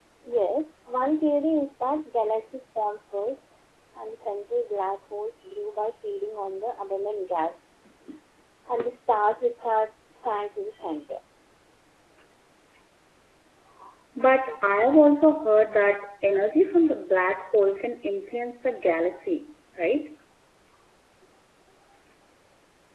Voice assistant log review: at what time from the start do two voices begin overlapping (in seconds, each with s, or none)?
none